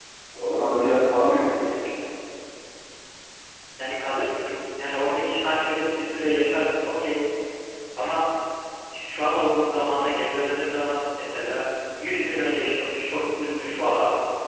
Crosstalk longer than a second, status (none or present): none